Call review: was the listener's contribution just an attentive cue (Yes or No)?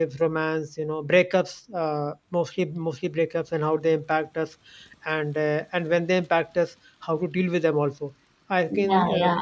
No